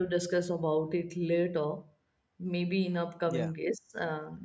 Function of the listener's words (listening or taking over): listening